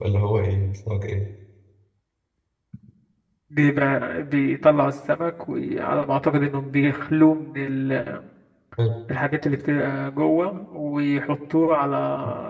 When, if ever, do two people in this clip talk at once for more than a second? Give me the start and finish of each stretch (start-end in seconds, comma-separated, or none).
none